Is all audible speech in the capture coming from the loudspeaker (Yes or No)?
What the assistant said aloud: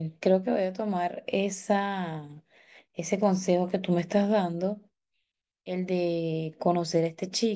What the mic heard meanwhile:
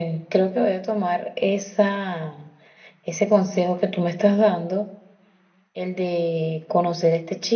Yes